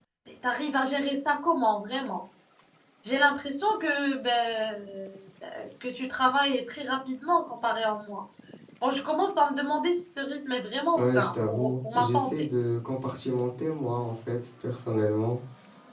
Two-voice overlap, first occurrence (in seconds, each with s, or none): 10.9 s